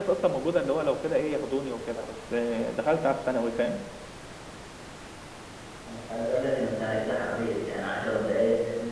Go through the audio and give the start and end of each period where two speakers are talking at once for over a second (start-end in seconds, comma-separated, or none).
none